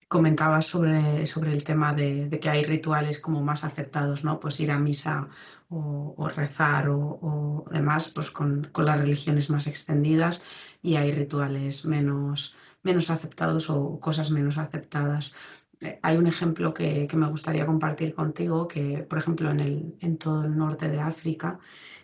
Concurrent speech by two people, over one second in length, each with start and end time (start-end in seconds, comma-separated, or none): none